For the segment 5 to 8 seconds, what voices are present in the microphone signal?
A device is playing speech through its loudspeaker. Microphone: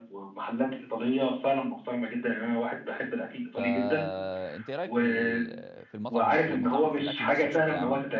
both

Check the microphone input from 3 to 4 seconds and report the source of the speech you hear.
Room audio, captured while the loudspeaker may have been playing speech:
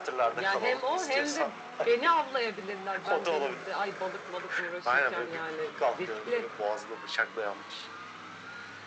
both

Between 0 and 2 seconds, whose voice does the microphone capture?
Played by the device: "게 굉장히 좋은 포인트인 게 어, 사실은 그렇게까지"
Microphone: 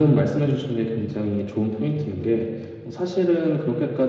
echo only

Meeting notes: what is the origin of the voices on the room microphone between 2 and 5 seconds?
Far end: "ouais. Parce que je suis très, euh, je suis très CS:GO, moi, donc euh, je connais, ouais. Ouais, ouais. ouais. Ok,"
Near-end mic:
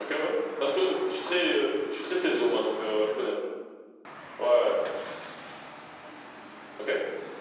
echo only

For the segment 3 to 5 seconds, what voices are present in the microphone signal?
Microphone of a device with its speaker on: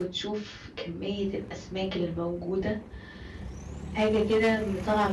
user only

